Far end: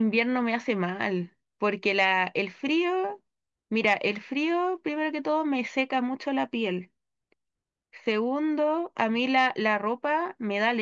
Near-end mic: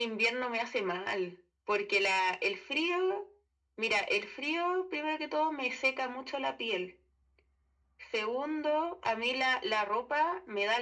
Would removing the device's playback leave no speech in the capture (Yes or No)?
Yes